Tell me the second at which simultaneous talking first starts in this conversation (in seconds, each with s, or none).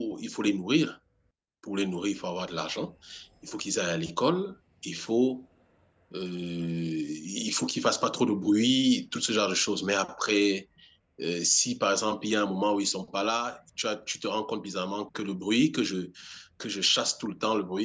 none